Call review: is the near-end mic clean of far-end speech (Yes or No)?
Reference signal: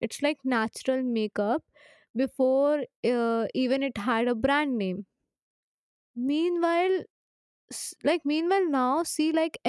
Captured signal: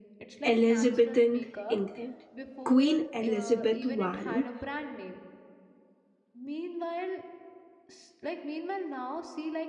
No